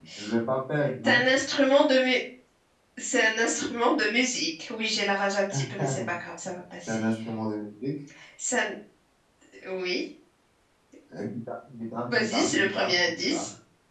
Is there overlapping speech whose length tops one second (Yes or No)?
Yes